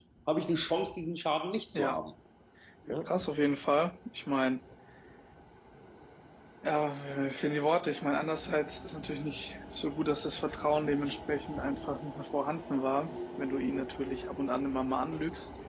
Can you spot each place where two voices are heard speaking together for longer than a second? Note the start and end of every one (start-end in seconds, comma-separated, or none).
none